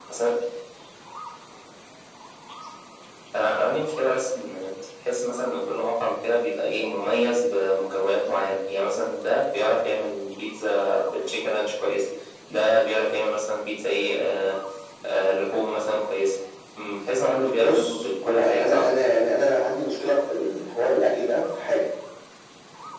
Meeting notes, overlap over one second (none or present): present